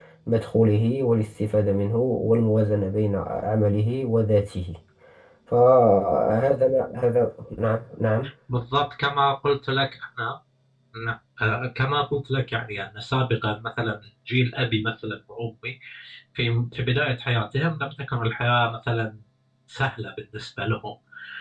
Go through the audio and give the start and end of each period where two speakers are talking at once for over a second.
none

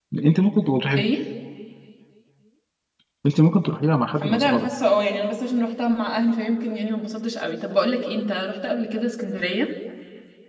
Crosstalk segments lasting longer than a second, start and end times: none

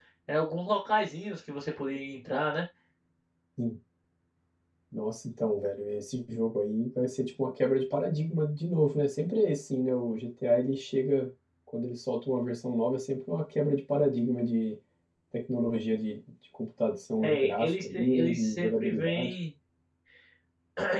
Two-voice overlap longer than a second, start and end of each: 17.2-19.3

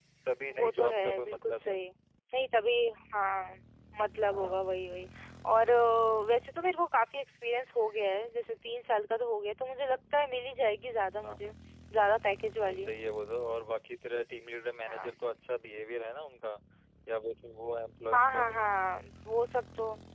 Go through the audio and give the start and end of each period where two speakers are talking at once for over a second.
0.6-1.8

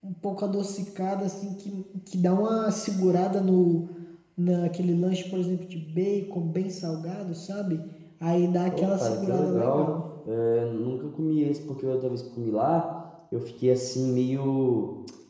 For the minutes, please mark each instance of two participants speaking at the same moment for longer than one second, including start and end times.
8.7-9.9

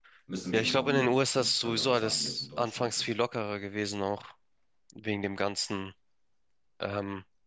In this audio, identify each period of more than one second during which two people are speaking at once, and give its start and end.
0.5-3.1

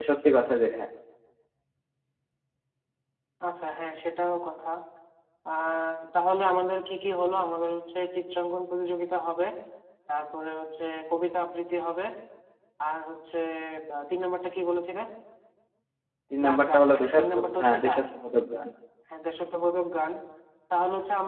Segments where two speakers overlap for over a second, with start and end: 16.4-18.0

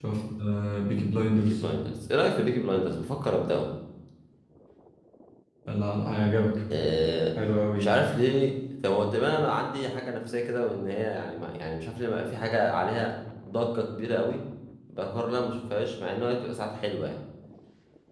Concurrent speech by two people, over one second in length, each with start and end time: none

